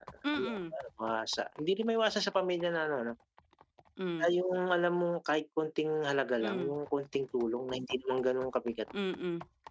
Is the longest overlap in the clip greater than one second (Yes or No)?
No